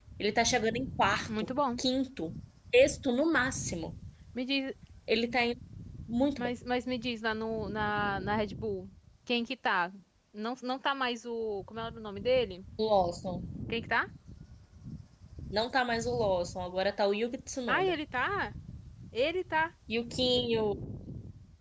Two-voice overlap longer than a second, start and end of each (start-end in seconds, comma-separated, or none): none